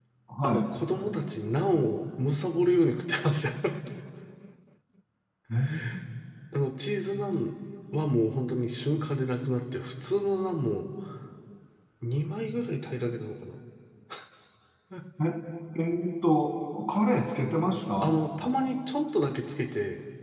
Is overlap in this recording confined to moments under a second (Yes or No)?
Yes